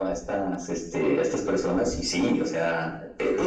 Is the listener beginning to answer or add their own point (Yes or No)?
No